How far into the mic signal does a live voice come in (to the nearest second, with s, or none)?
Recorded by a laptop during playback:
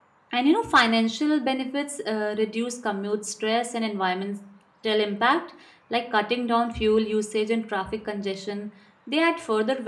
0 s